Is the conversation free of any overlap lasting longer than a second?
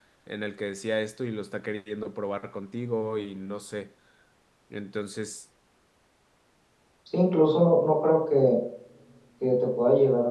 Yes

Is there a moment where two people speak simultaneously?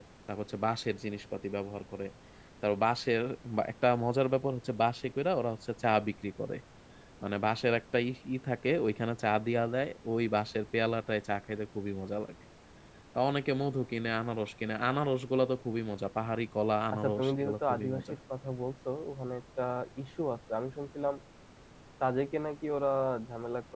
Yes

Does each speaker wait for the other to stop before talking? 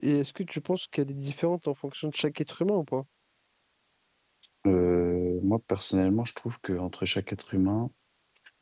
Yes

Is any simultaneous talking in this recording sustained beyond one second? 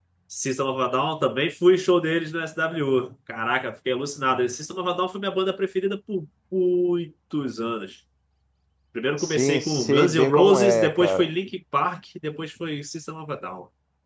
Yes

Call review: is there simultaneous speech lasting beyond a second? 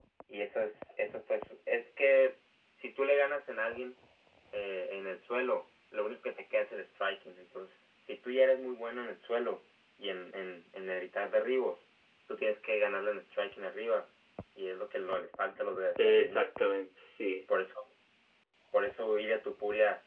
No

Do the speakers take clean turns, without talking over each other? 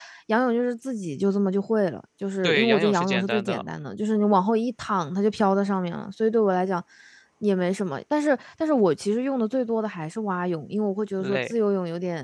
No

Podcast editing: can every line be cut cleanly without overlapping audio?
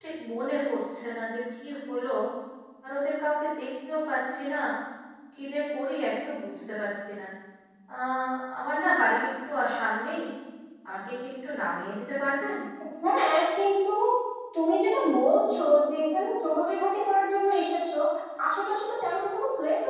Yes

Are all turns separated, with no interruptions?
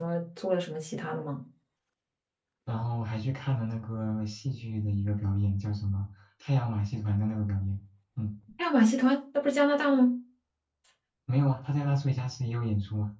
Yes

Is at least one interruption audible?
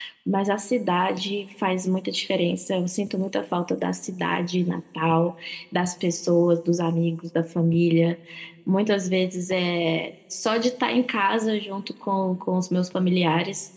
No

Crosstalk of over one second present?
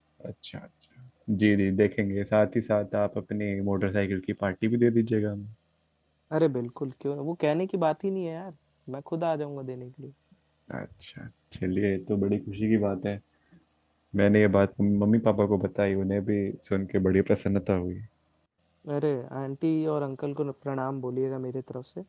No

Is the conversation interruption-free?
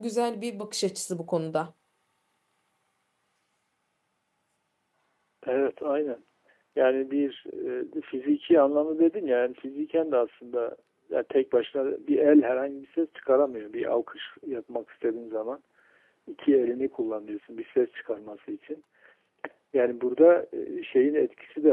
Yes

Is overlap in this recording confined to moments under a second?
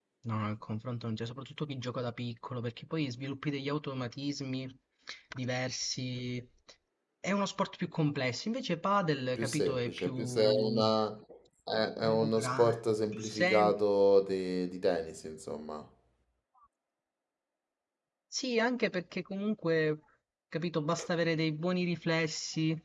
No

